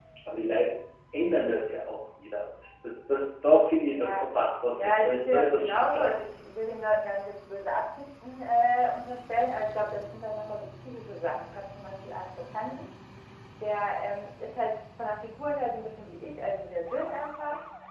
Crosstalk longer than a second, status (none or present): present